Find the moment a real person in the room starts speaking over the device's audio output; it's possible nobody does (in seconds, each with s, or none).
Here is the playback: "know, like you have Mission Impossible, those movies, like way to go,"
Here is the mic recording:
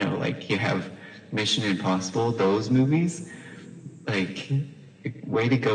none